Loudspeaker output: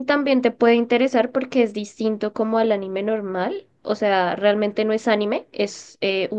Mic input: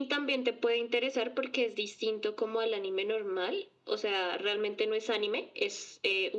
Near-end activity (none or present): none